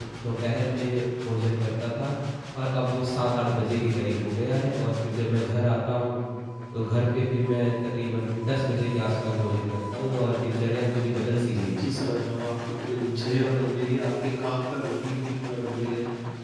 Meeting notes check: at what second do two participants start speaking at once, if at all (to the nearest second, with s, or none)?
none